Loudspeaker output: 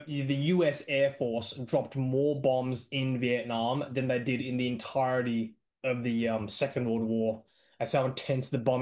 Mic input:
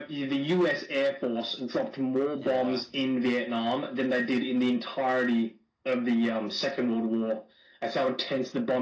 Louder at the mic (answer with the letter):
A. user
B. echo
B